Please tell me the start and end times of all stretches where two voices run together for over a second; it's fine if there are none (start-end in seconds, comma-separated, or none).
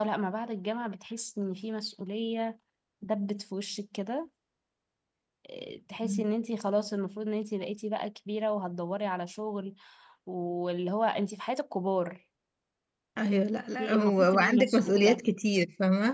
13.8-15.2